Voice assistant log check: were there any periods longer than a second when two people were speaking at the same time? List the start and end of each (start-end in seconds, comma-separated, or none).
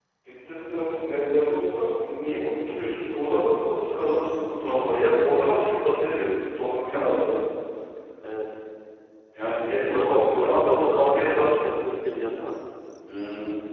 9.9-11.6